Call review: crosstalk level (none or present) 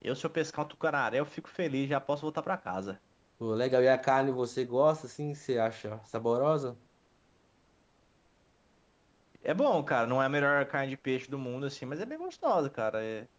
none